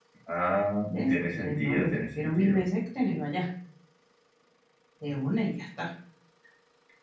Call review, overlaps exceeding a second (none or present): present